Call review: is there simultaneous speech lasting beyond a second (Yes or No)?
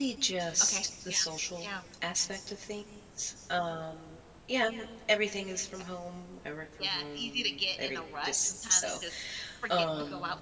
Yes